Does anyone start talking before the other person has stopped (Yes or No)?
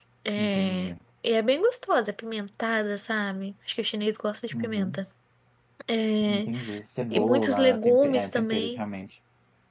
Yes